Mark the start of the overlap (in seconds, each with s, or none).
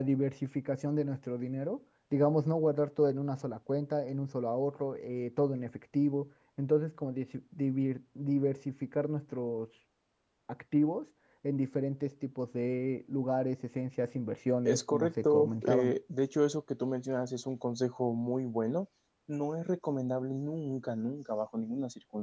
14.7 s